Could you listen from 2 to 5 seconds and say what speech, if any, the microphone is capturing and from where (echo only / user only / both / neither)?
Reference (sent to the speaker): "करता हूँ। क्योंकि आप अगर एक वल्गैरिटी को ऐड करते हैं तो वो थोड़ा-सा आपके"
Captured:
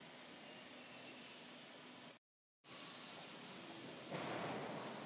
neither